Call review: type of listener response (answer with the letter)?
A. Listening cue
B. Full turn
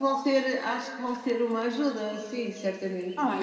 B